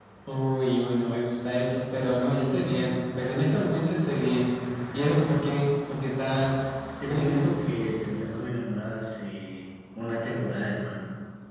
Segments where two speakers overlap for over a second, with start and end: none

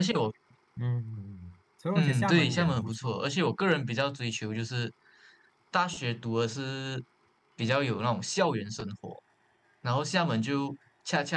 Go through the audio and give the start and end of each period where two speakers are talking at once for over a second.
1.9-3.2

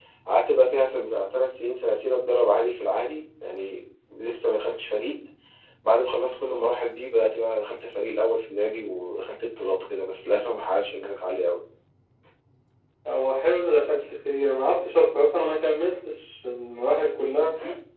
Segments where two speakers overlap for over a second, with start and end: none

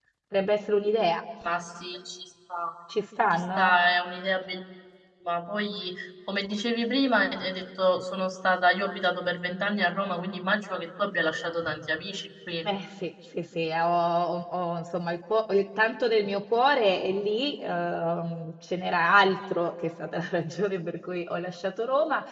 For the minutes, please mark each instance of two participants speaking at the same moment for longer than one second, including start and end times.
none

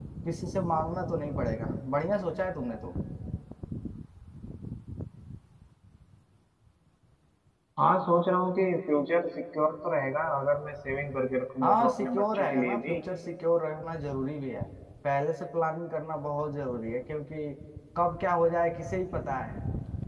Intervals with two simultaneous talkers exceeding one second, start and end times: 11.6-13.0

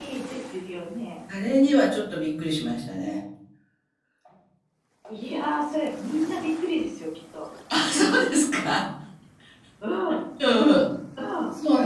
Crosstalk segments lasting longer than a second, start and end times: none

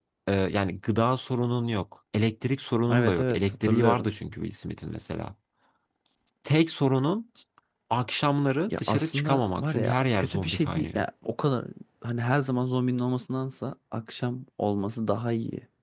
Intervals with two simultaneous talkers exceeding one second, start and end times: 2.9-4.1, 8.7-11.0

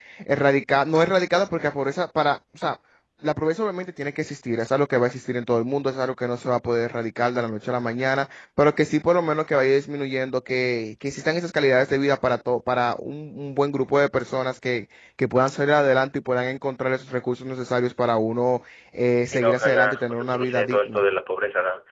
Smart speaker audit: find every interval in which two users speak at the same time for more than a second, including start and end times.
19.2-21.0

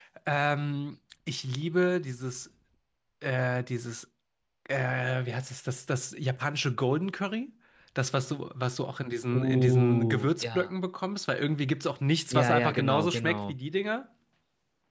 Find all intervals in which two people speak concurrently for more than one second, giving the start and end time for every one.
9.3-10.7, 12.3-13.5

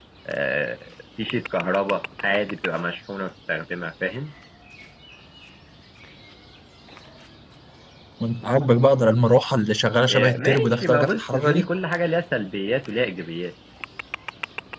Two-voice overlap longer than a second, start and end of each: 10.1-11.7

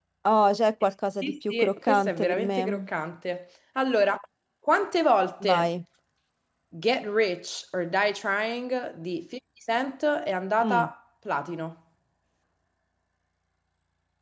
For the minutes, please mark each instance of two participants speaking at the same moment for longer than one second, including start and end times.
1.2-2.9

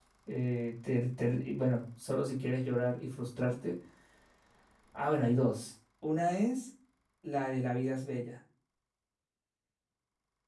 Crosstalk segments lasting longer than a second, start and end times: none

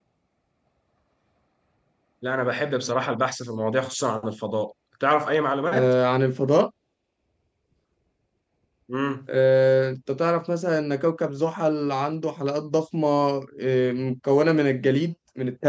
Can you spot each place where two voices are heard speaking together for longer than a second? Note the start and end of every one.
none

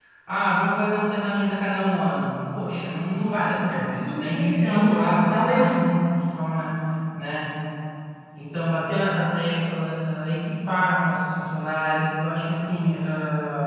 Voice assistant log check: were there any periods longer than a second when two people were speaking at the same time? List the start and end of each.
4.0-6.0

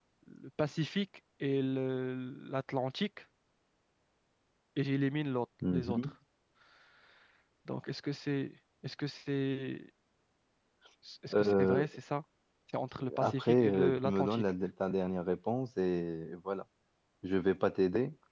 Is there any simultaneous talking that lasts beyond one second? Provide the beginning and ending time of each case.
13.2-14.4

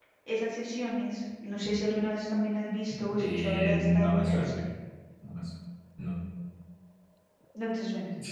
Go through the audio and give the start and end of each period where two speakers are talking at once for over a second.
3.2-4.5

